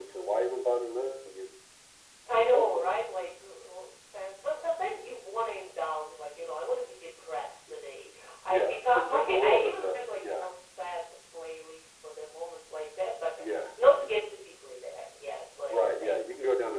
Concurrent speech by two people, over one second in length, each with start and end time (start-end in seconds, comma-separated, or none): 8.5-10.4